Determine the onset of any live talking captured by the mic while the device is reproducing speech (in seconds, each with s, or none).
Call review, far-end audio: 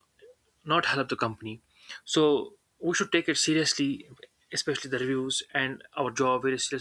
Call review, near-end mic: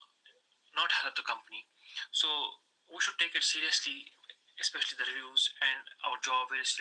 none